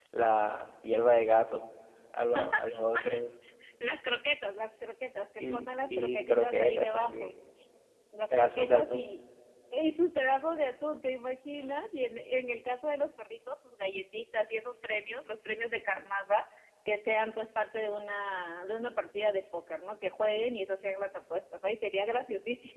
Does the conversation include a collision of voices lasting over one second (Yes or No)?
Yes